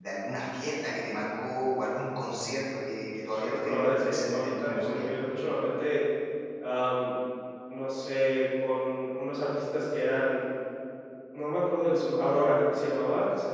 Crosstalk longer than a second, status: present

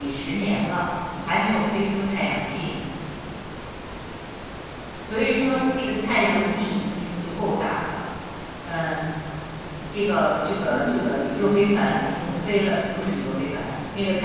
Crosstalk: present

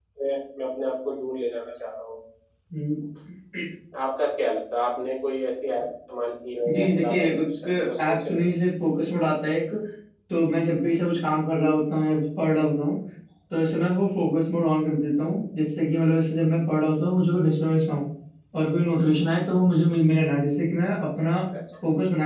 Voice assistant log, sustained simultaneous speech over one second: present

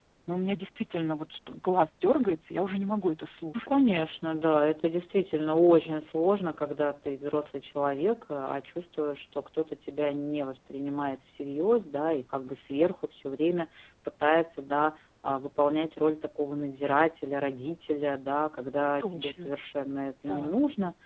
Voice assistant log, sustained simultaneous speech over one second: none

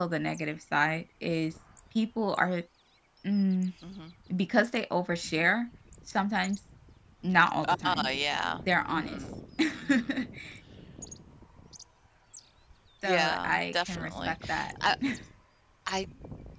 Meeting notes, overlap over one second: present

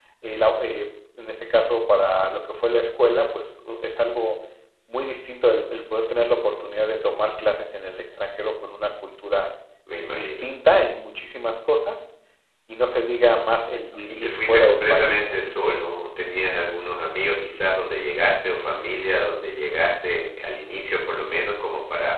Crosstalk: present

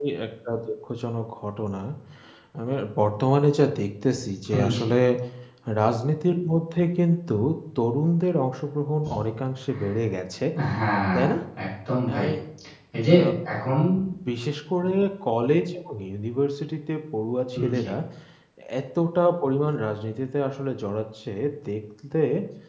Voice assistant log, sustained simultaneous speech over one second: none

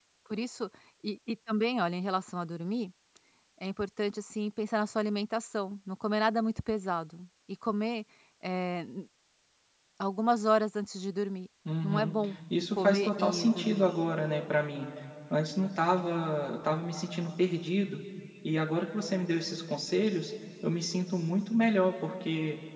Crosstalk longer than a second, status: present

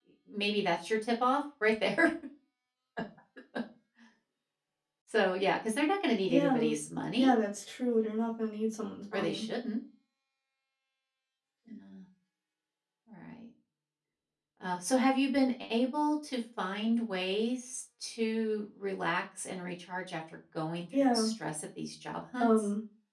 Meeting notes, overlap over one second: none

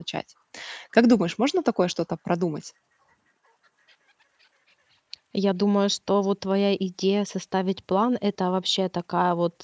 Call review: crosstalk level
none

